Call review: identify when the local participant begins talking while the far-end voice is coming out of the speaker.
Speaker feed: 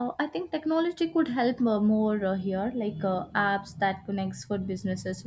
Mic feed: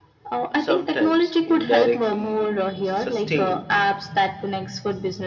0.6 s

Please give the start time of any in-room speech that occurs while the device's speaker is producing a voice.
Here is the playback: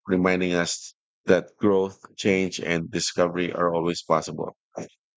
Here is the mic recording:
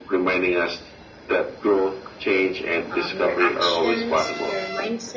2.9 s

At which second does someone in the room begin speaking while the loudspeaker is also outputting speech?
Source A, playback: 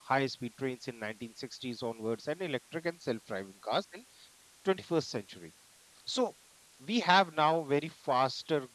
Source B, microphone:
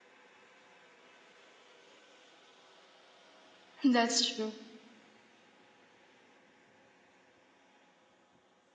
3.8 s

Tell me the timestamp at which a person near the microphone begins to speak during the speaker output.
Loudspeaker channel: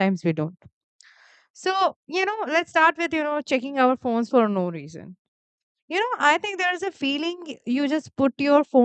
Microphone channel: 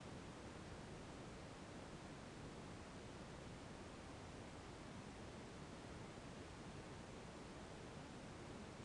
none

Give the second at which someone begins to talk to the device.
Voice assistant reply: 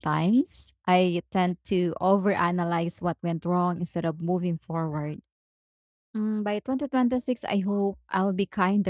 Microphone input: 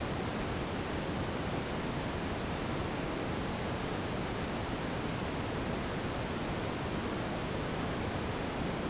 none

